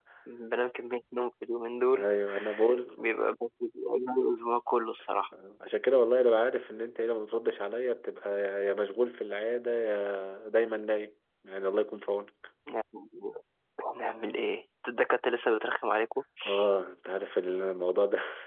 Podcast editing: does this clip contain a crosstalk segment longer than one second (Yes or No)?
No